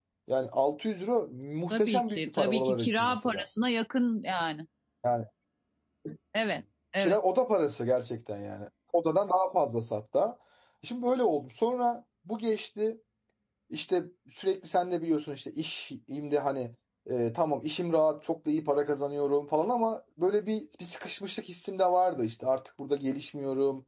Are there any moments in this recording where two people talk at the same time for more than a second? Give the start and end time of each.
1.7-3.4

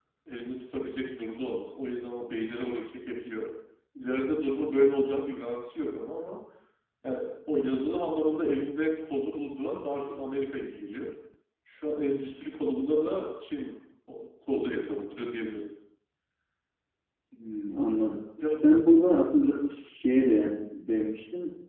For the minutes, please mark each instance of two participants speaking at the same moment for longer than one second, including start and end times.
none

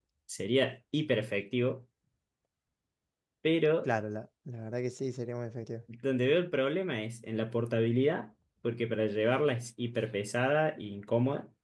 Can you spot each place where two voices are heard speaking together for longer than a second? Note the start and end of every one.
none

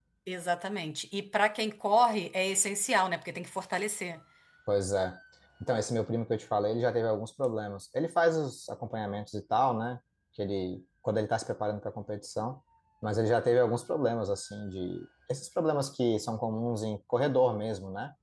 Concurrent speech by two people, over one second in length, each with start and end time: none

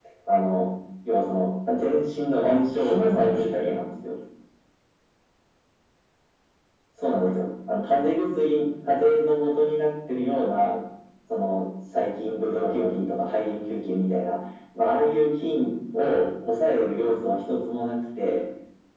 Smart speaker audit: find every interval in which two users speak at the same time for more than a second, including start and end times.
2.4-3.7

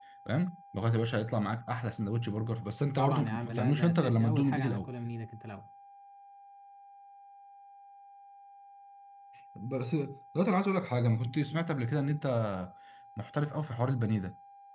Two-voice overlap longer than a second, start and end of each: 3.0-4.9

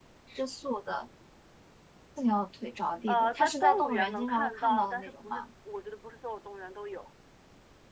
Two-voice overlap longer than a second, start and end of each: 3.1-5.5

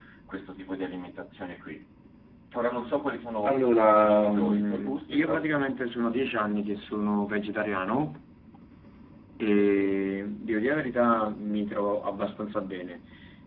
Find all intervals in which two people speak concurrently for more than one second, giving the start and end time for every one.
3.4-5.7

